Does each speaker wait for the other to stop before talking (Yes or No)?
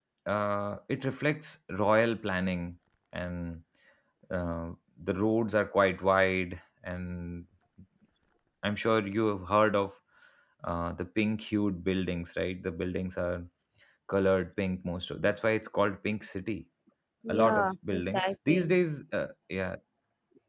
No